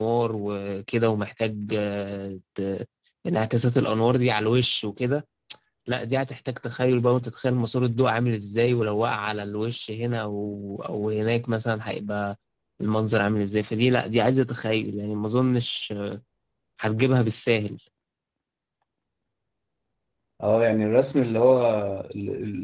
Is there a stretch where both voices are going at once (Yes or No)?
No